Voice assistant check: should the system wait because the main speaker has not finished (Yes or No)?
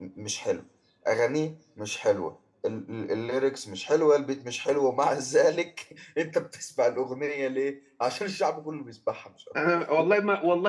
No